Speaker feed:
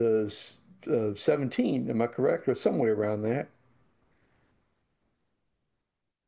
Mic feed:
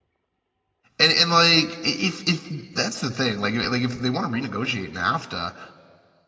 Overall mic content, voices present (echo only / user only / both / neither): user only